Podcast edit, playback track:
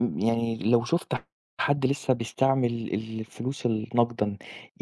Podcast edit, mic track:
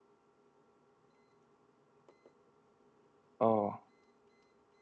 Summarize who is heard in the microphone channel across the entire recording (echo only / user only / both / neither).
user only